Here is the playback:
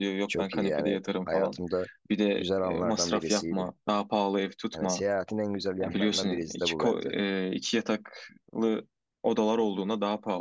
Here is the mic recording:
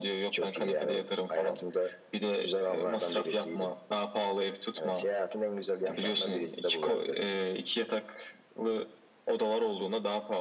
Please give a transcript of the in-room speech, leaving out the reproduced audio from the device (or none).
none